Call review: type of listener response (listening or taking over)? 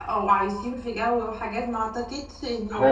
taking over